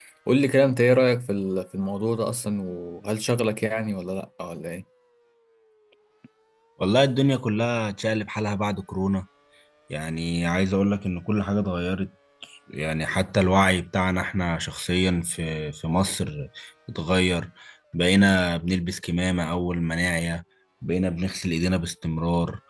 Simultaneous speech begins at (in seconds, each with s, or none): none